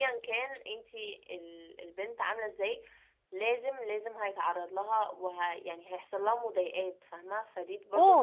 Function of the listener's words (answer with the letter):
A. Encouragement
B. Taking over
B